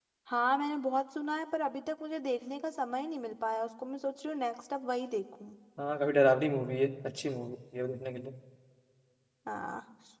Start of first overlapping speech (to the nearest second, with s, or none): none